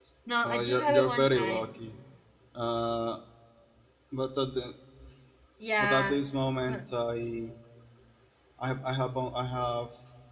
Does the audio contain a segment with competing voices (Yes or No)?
Yes